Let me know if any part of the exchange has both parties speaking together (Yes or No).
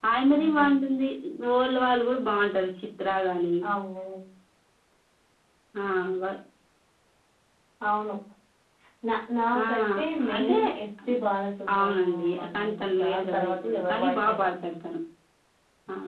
Yes